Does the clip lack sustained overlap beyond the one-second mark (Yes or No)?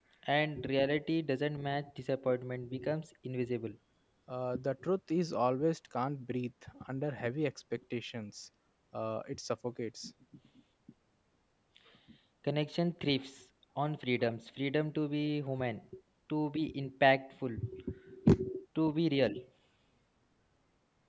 Yes